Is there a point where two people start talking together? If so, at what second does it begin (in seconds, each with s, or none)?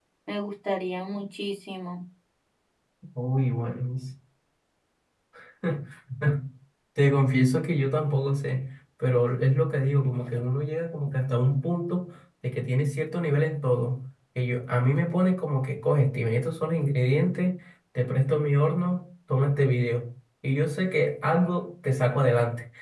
none